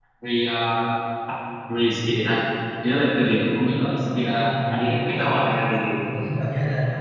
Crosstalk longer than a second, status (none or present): present